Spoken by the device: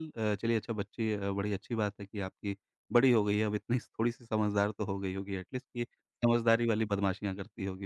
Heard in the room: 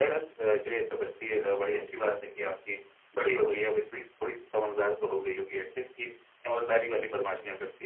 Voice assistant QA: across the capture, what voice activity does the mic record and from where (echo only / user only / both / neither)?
echo only